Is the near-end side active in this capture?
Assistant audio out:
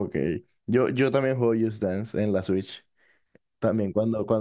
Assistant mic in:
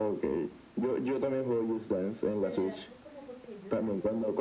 Yes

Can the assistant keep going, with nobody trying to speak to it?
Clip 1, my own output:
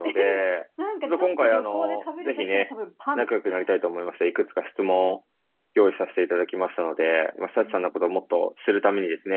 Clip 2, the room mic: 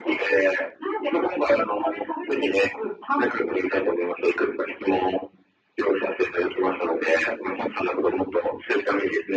Yes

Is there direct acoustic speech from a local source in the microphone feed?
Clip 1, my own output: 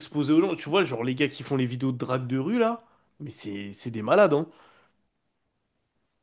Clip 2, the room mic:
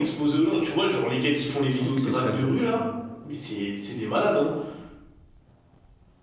Yes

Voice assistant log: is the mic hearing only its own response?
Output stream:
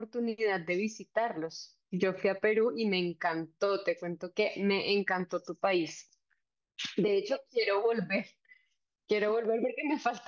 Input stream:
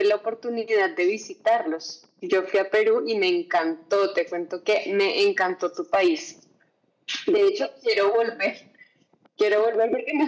Yes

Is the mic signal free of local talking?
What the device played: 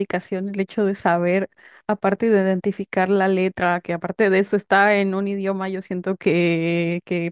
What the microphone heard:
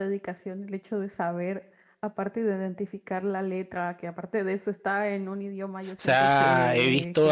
No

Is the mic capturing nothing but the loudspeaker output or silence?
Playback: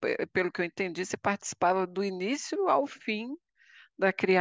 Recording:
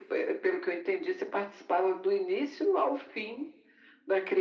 Yes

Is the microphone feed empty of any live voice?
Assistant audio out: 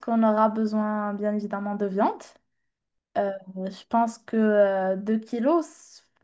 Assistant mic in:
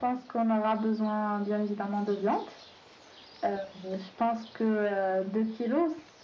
Yes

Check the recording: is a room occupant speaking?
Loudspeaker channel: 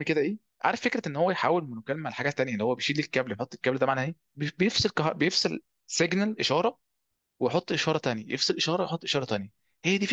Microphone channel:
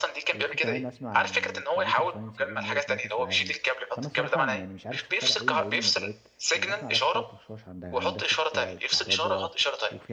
Yes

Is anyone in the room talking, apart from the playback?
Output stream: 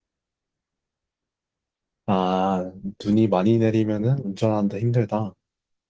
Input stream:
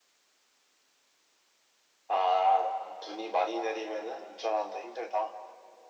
No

